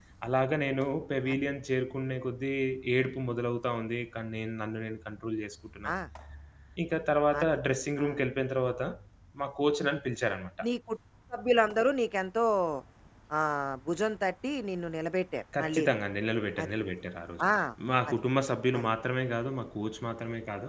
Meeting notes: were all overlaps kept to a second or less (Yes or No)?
Yes